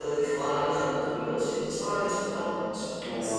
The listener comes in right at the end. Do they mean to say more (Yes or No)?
Yes